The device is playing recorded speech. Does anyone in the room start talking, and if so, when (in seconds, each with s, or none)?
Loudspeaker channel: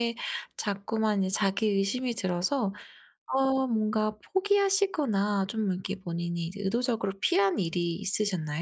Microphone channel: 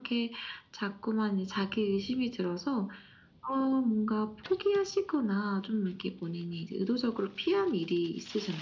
none